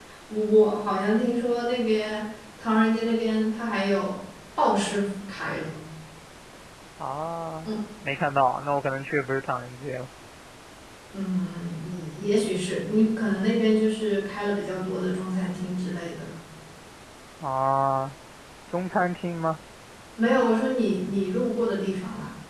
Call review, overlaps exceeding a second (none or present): none